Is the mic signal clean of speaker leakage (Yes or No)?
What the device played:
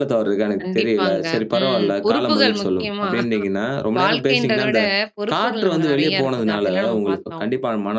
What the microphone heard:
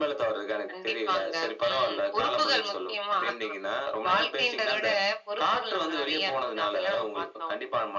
No